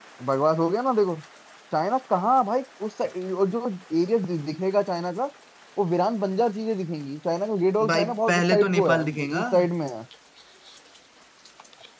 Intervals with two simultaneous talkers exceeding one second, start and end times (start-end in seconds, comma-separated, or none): 7.9-9.4